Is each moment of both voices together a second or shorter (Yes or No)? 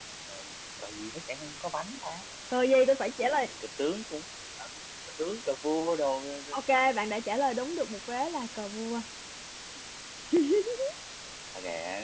Yes